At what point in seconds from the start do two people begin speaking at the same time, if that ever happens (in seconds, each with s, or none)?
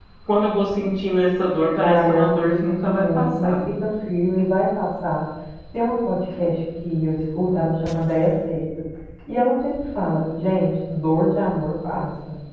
1.8 s